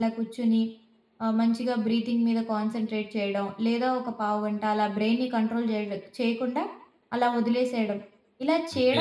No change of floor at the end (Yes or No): Yes